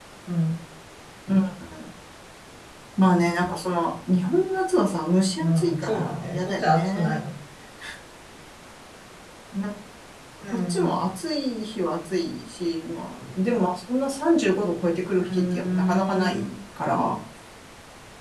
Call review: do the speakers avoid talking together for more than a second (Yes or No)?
No